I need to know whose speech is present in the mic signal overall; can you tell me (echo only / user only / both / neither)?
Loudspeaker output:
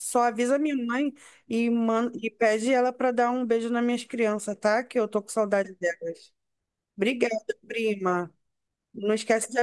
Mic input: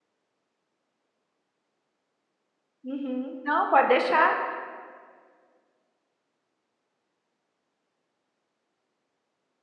user only